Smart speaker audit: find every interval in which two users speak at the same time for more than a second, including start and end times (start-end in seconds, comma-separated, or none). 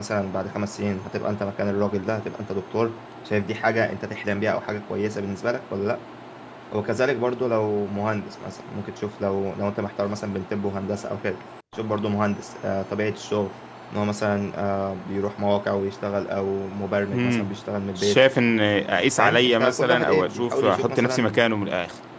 19.2-21.3